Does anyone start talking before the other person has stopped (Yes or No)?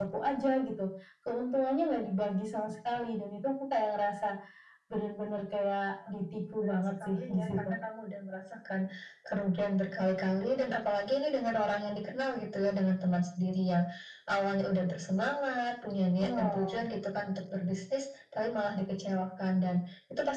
Yes